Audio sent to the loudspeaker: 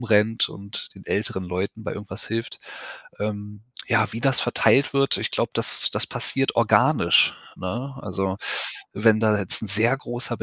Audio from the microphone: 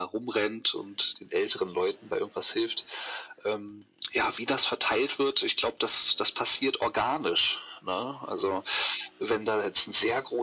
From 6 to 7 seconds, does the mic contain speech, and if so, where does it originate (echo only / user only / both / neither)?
echo only